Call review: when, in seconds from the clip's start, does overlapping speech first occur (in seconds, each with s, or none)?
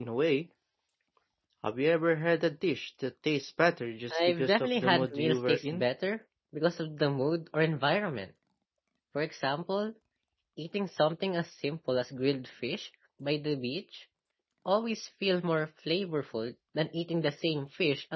4.1 s